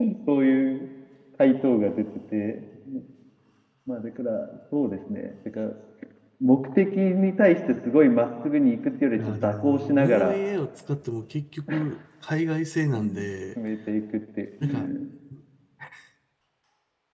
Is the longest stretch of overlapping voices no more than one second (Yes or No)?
No